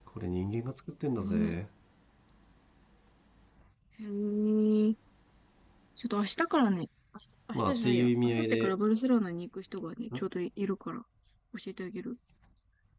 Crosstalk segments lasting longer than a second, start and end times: 7.5-8.8

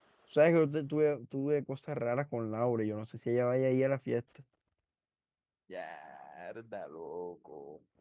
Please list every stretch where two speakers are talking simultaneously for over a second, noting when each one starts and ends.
none

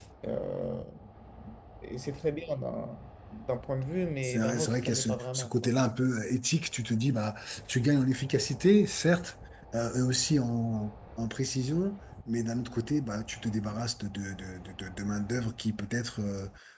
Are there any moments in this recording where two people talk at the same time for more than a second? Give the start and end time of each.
4.2-5.7

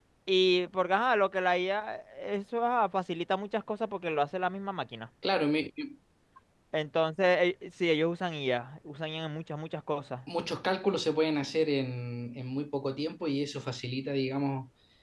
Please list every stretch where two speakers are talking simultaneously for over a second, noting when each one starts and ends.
none

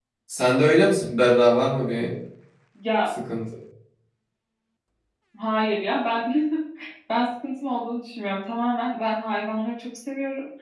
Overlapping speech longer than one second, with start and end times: none

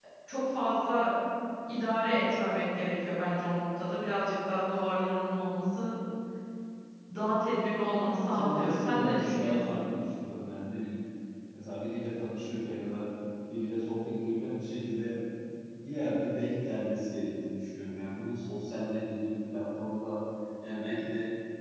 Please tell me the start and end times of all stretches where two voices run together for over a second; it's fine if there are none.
7.9-9.6

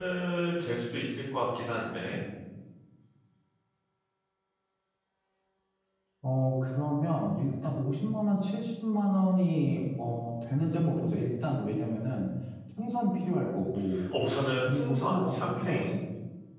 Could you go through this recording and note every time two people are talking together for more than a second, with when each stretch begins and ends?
14.6-15.9

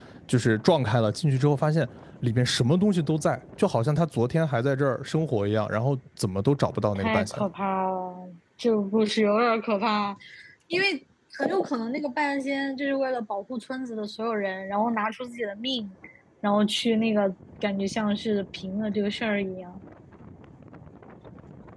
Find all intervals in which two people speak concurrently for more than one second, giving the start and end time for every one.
none

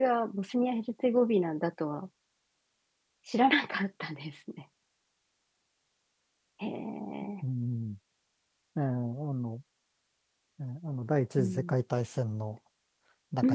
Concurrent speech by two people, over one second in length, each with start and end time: none

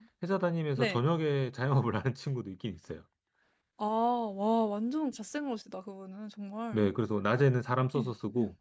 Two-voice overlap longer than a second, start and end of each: none

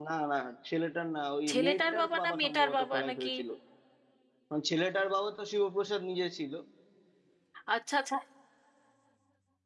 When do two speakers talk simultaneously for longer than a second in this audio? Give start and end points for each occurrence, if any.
1.5-3.3

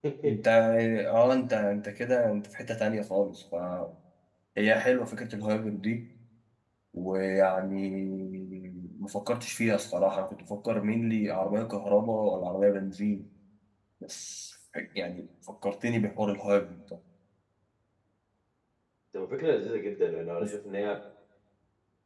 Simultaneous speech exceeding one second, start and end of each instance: none

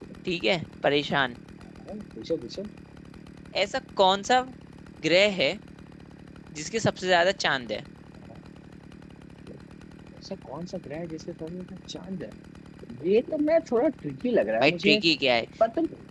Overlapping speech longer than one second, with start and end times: none

